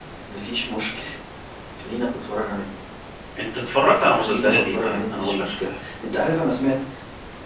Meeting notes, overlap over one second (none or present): present